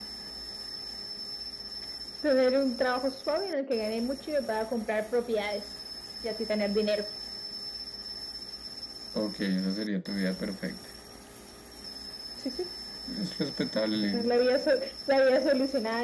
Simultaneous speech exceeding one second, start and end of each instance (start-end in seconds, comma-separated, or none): none